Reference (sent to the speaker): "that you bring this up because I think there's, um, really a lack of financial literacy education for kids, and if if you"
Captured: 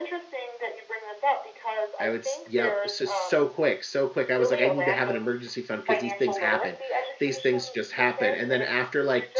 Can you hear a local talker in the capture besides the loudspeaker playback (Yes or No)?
Yes